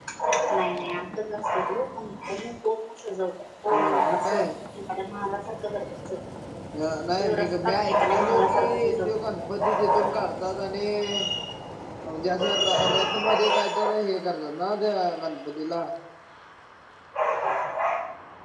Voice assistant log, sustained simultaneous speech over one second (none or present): present